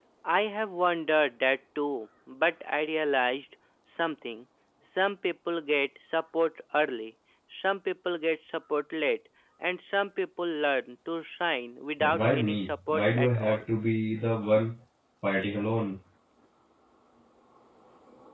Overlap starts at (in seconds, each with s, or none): 12.0 s